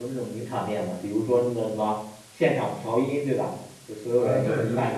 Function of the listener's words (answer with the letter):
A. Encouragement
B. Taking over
B